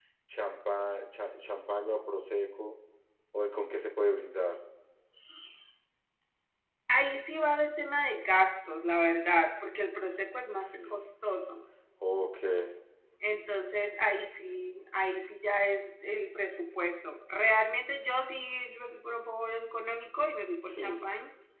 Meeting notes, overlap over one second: none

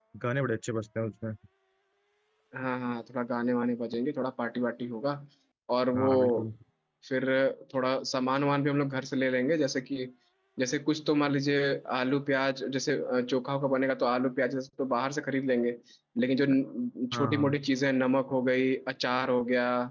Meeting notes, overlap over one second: none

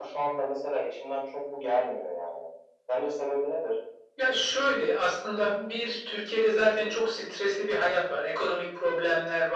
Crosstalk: none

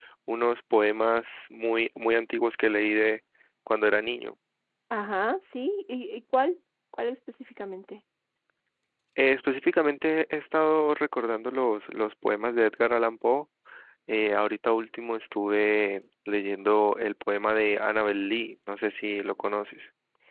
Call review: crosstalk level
none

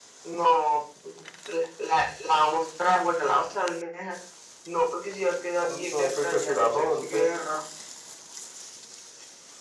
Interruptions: present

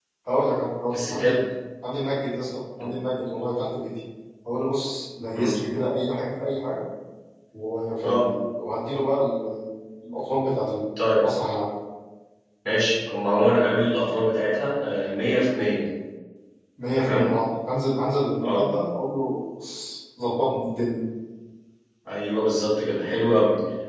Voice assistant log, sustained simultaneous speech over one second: none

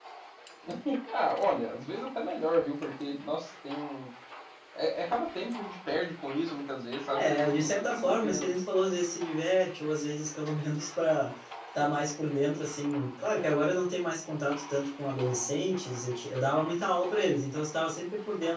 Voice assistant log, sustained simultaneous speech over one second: present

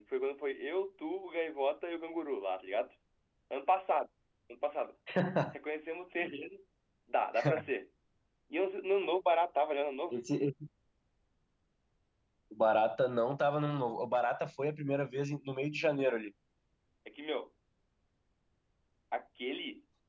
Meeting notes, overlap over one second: none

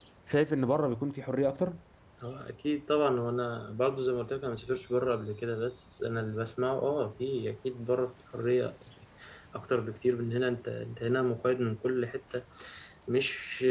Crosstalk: none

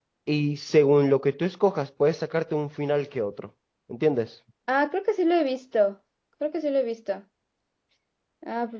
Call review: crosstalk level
none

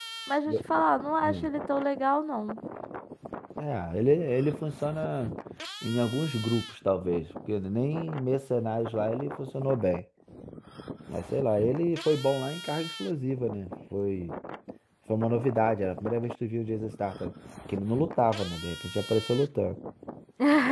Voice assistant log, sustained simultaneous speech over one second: none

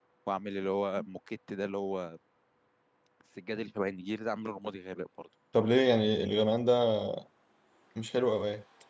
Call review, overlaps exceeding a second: none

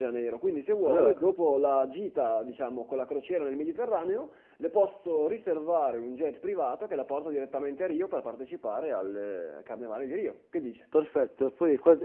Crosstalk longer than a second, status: none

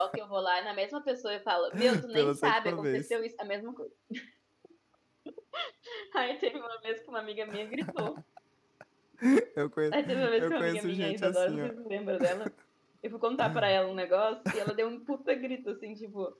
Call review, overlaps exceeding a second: present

